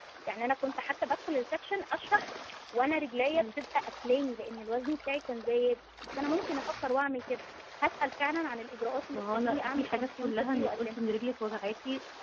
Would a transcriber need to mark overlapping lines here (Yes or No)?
Yes